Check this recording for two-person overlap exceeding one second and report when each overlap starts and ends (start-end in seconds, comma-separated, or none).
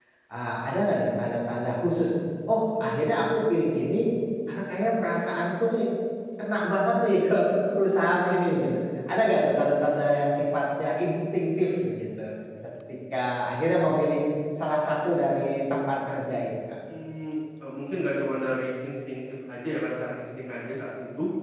none